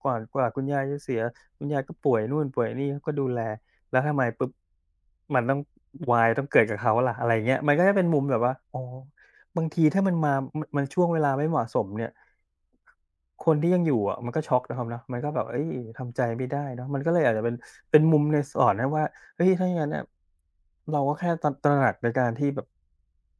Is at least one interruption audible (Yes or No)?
No